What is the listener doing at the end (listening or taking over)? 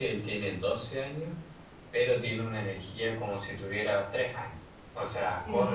listening